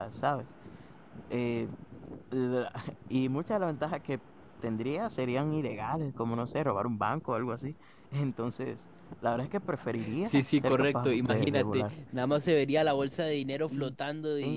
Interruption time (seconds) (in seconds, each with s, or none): 10.2 s